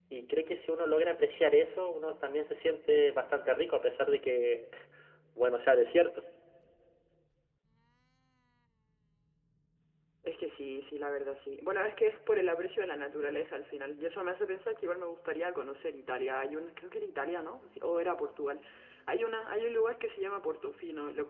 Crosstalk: none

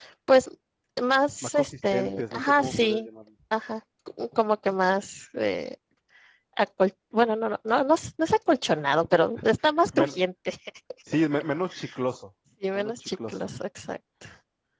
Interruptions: present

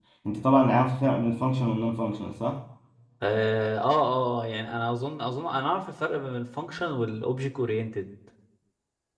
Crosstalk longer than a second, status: none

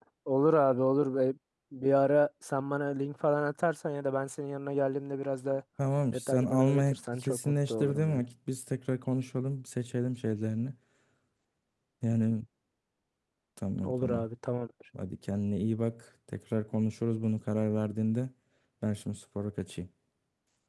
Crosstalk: present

